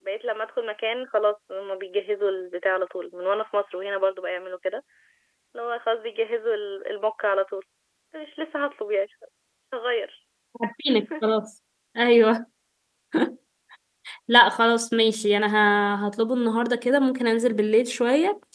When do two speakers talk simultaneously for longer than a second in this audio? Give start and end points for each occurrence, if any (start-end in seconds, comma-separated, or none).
none